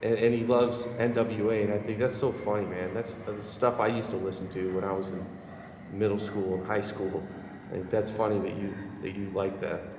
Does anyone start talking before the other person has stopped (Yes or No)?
No